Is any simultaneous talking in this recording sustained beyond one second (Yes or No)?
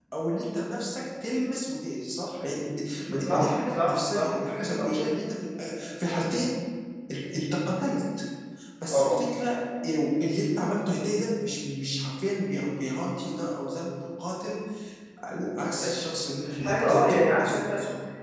Yes